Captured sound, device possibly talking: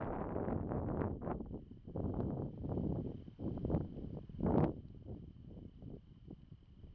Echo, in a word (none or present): none